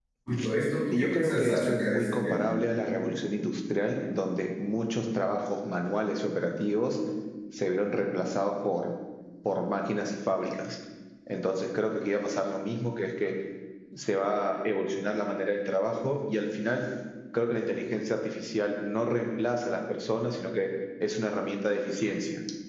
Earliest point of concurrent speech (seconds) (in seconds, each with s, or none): 0.9 s